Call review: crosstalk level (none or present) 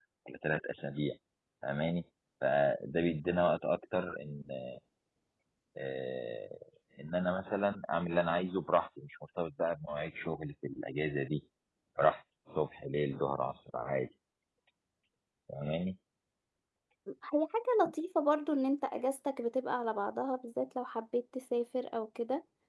none